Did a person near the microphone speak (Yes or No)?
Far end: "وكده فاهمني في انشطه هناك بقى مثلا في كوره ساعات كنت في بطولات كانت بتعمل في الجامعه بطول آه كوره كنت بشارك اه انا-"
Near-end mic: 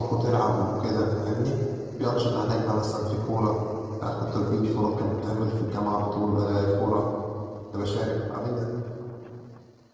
No